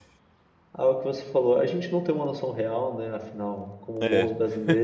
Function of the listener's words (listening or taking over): listening